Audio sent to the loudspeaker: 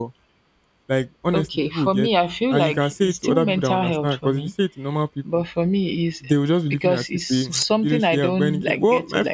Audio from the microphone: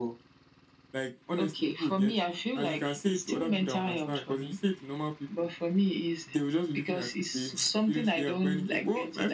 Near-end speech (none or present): none